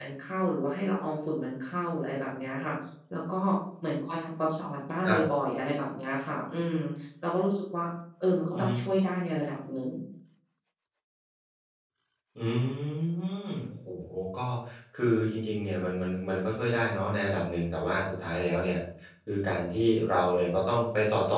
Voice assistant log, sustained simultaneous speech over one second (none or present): none